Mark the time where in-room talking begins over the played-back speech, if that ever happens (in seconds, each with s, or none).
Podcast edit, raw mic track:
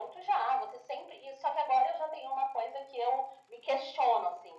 none